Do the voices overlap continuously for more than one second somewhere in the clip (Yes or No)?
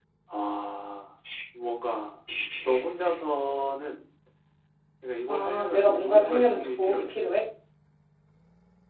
Yes